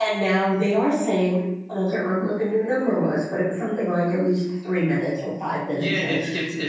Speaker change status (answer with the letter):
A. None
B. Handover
B